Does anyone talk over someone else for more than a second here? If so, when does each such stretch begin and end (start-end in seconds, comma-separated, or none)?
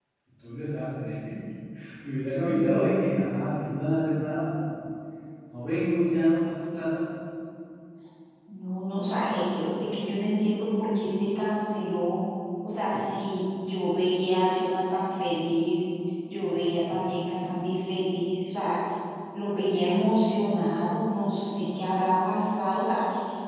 none